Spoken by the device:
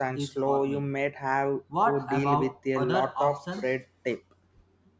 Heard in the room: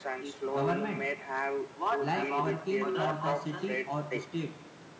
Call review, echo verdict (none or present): present